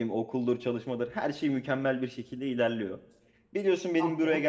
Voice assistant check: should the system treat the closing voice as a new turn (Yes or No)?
No